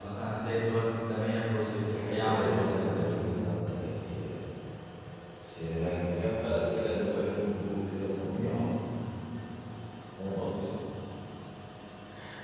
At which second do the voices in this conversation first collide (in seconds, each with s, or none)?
1.8 s